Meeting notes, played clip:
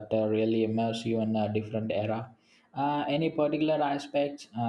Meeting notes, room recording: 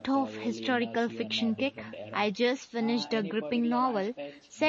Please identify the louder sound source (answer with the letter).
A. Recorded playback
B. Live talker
B